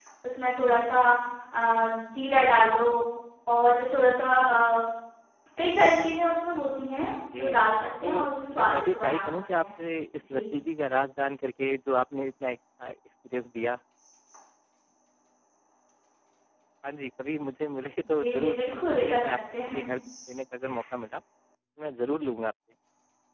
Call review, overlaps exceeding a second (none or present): present